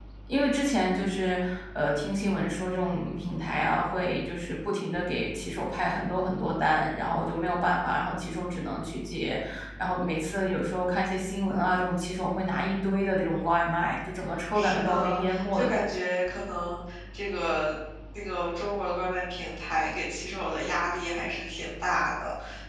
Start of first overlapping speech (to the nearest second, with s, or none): 15 s